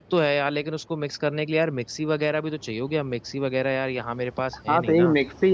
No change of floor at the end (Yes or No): No